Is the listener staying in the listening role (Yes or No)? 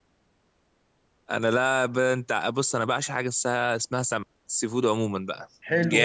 No